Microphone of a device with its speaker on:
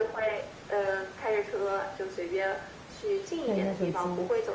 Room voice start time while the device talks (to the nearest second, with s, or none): 3 s